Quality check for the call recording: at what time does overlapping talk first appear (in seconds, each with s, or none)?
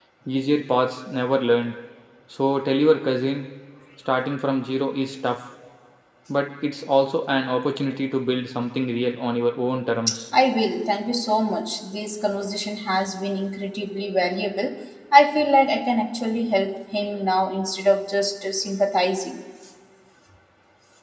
none